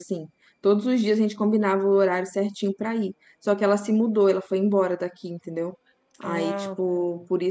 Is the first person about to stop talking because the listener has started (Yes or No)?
No